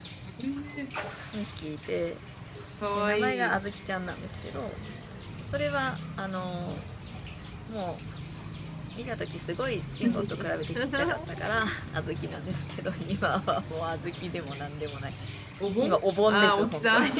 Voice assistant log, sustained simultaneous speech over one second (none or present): present